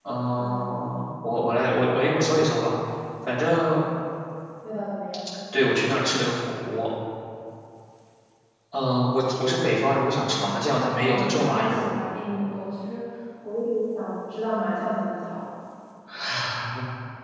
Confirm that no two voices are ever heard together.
No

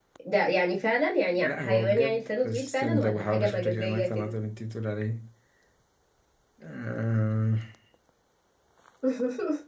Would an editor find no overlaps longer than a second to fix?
No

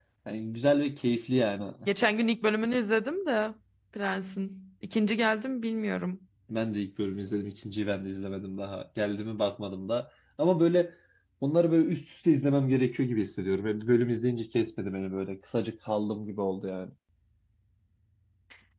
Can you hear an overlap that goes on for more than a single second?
No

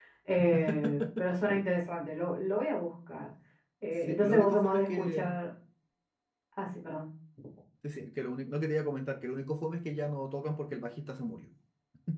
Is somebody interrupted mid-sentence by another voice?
Yes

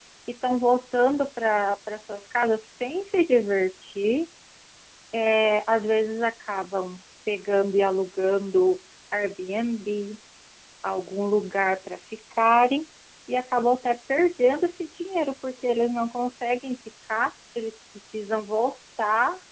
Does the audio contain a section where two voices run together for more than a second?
No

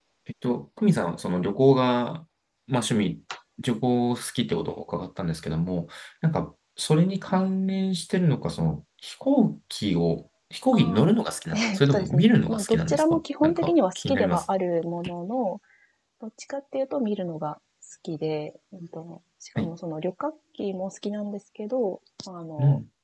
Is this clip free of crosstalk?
No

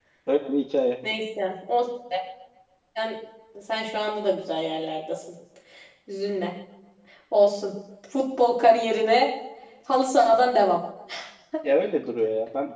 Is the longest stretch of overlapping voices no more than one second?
Yes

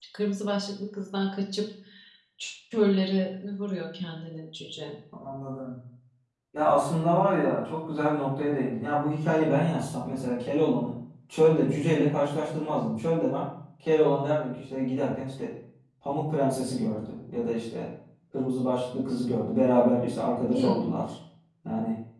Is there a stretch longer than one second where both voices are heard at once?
No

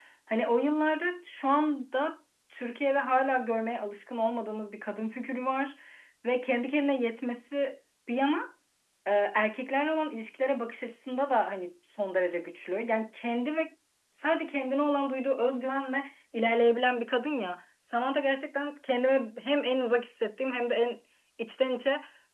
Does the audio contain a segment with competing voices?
No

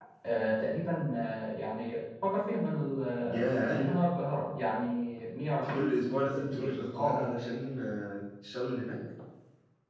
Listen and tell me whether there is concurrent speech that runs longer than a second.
Yes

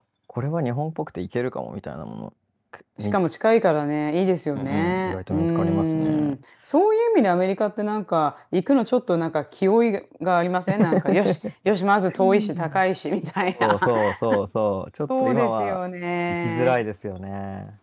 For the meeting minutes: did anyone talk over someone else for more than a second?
Yes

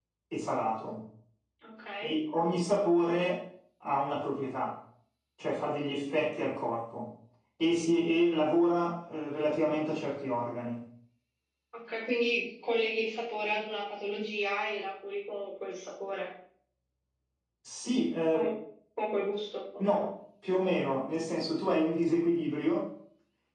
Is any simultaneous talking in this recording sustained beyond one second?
No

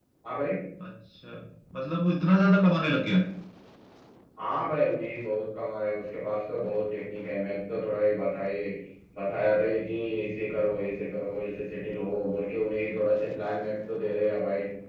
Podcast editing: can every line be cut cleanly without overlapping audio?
Yes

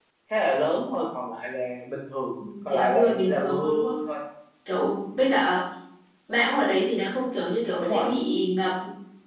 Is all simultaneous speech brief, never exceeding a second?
No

